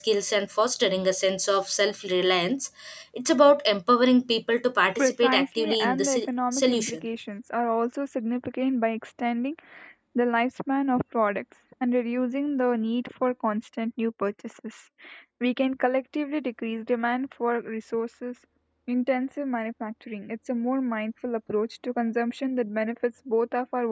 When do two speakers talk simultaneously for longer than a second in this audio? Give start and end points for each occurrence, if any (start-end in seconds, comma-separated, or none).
5.0-7.0